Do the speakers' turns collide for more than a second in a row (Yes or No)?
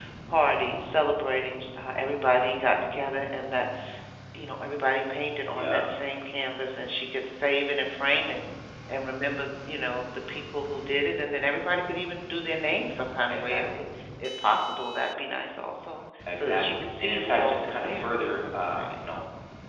Yes